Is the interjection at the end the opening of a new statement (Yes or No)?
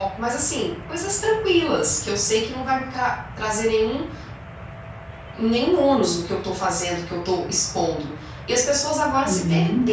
No